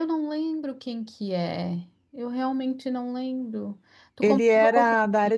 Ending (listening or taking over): taking over